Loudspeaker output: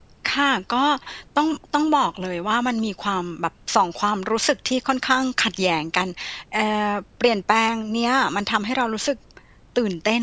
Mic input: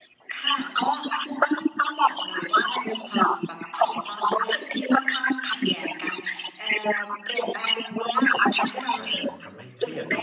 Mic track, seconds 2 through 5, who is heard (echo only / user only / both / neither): echo only